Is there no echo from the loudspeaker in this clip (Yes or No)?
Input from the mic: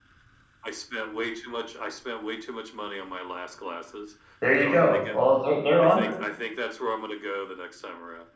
No